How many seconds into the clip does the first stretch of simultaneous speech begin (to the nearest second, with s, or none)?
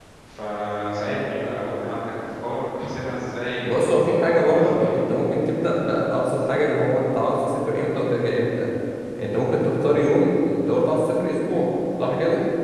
4 s